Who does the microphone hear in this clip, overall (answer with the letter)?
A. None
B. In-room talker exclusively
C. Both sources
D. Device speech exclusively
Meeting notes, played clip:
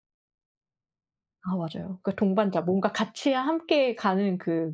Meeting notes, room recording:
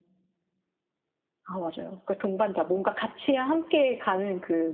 D